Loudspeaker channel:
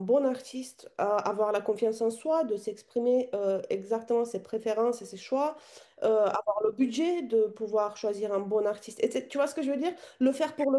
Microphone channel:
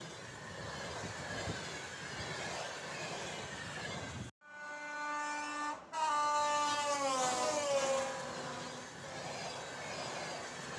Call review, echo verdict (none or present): none